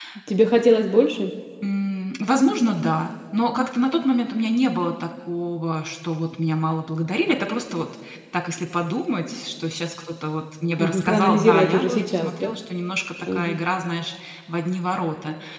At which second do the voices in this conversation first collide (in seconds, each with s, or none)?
10.8 s